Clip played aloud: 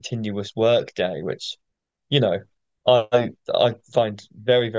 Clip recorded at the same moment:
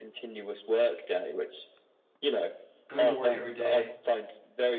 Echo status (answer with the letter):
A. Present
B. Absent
A